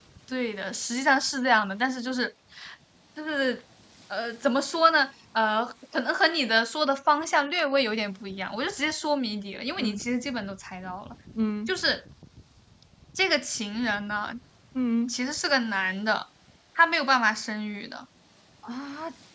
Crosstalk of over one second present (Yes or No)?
No